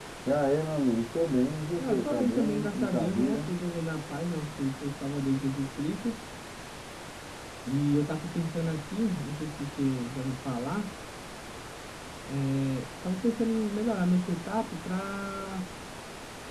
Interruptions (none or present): present